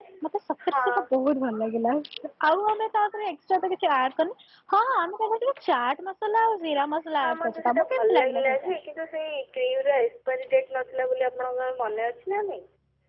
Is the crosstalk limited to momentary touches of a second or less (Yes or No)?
No